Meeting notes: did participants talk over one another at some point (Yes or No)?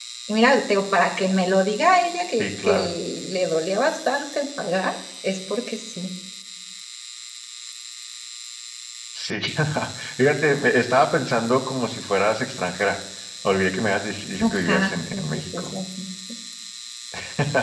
Yes